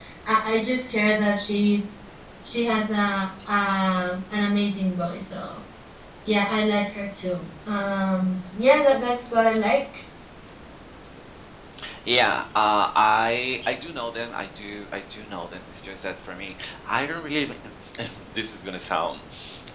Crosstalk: none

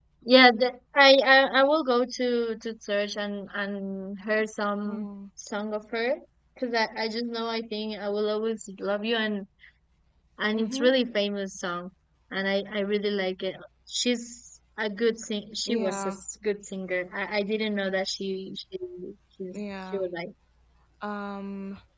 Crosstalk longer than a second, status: none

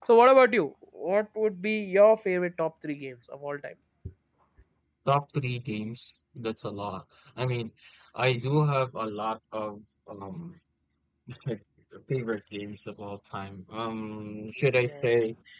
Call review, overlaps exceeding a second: none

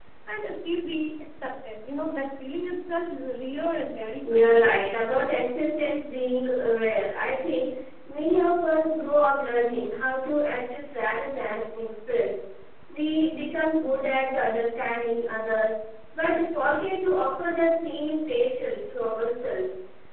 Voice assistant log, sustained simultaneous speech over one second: present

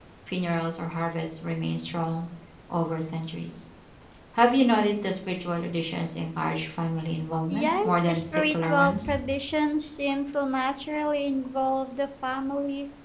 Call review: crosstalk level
present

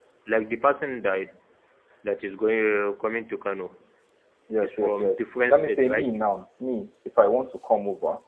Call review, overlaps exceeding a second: present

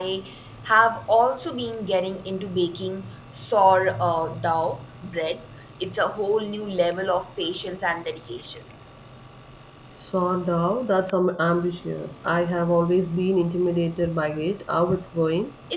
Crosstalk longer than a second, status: none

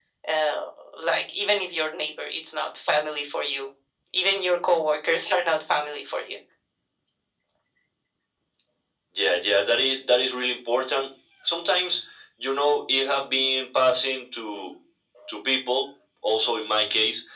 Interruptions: none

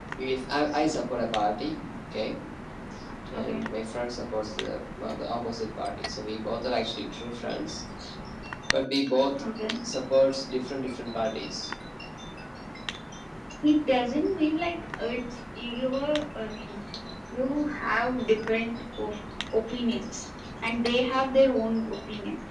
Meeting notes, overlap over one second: none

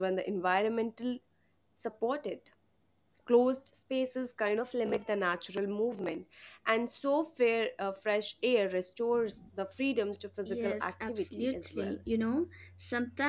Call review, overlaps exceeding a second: present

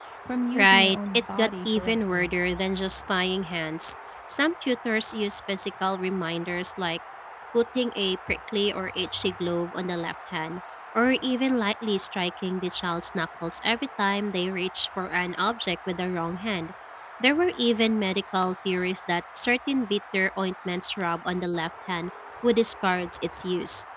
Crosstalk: present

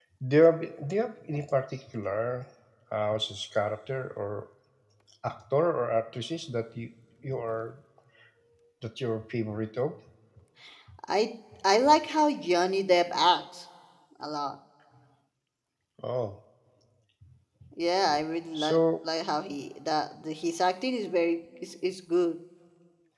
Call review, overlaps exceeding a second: none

